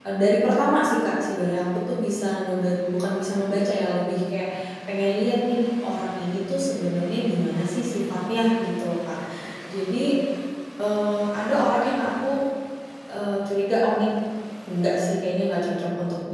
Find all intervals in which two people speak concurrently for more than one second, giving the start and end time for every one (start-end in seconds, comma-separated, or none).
none